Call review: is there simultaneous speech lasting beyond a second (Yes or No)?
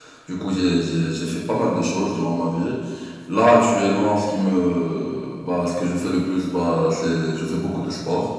No